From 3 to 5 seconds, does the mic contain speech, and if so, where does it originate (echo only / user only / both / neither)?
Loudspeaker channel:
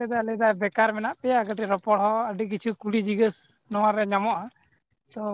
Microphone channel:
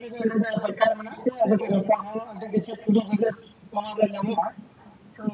echo only